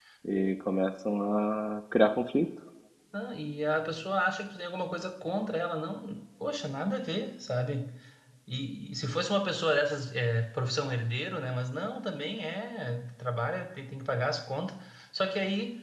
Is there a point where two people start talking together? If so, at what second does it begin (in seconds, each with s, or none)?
none